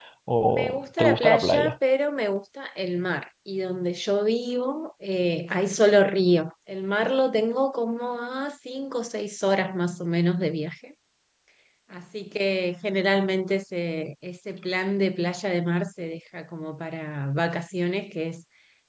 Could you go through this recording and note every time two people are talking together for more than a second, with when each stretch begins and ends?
0.5-1.8

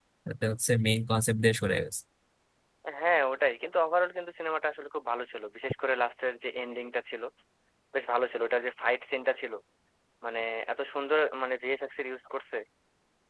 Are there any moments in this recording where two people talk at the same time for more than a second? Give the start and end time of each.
none

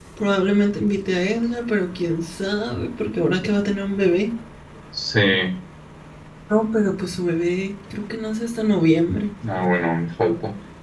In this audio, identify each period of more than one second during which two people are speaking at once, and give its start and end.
none

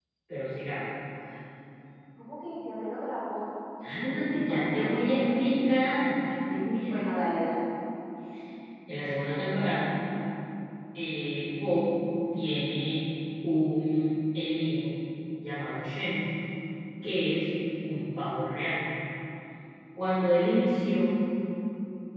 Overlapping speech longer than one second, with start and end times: 3.8-5.5

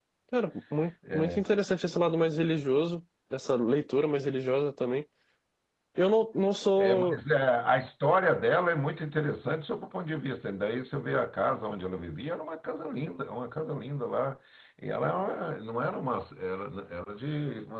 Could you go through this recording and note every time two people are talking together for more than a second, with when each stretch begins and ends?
none

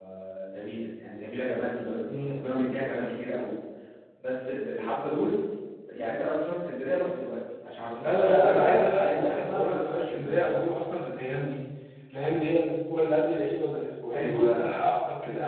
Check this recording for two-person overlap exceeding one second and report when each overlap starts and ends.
8.0-10.5

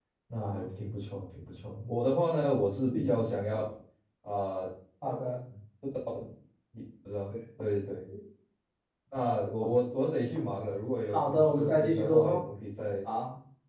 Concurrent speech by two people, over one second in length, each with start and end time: 11.1-12.4

